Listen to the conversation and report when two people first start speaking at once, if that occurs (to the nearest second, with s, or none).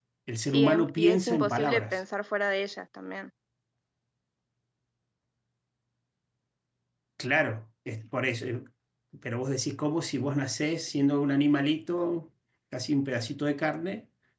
1 s